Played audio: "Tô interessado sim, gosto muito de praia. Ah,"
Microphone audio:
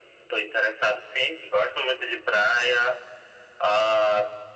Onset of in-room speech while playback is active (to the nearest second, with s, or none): none